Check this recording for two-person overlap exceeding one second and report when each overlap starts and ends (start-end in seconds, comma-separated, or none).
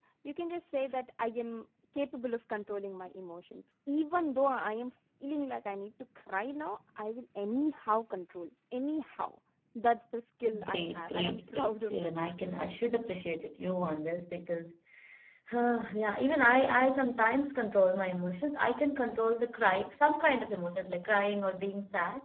10.6-12.1